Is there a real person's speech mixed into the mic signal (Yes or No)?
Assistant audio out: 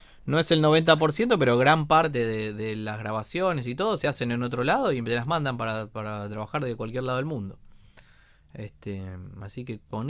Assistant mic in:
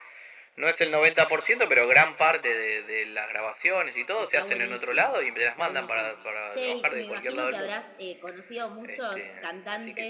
Yes